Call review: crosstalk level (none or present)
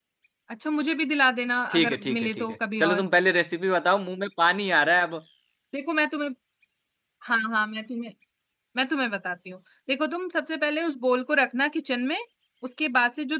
present